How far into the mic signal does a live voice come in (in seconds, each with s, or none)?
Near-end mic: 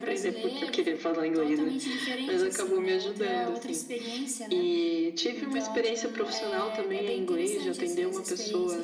none